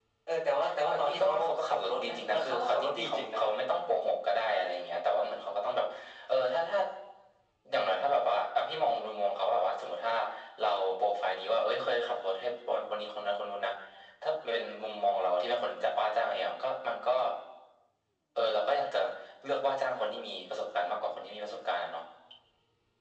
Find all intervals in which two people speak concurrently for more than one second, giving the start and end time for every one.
0.9-3.4

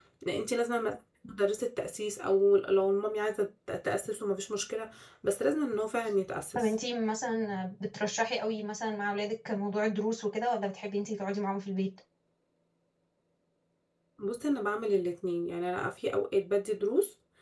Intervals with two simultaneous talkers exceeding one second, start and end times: none

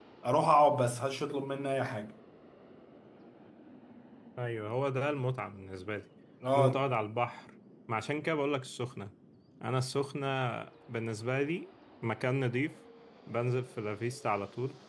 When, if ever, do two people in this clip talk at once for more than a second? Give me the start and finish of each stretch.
none

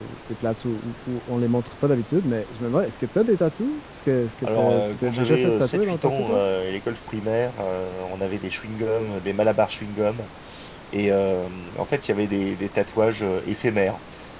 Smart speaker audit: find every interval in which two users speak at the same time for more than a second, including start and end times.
4.6-6.4

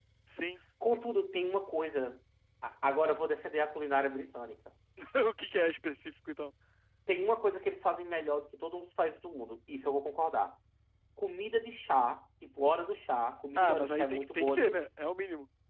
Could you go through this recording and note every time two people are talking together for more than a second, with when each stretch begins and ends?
13.6-14.8

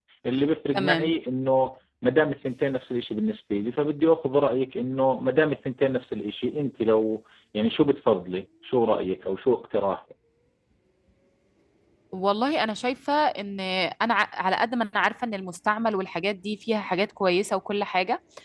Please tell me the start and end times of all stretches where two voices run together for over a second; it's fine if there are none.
none

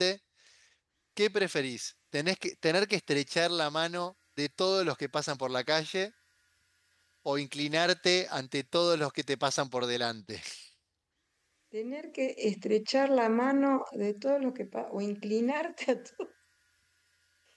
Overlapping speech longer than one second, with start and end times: none

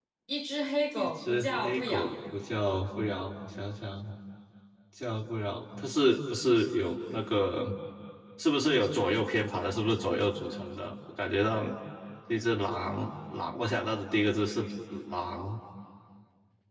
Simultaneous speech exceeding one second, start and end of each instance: 1.0-2.2

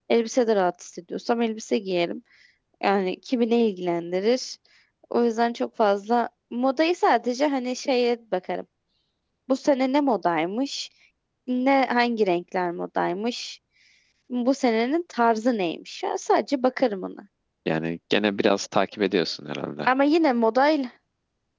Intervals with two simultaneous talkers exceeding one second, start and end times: none

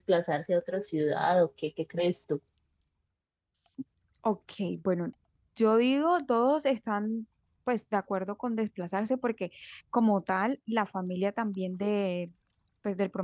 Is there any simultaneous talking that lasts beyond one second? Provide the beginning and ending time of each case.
none

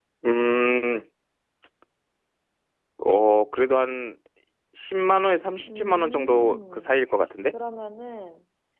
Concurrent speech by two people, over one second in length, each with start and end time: 5.7-6.9

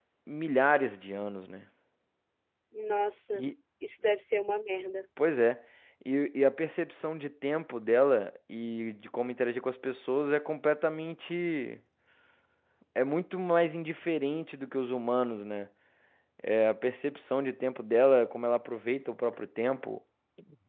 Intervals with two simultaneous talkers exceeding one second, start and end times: none

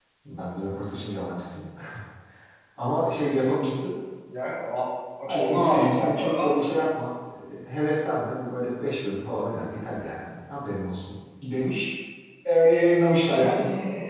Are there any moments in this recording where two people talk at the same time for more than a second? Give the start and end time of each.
5.3-6.6

